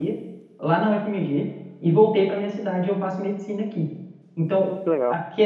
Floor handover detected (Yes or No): No